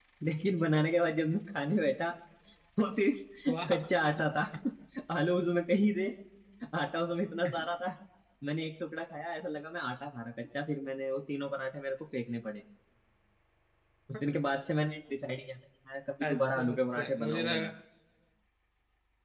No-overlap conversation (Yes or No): No